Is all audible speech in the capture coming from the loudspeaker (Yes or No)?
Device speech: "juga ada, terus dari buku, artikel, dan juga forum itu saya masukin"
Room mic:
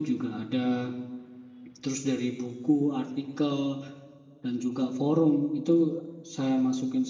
Yes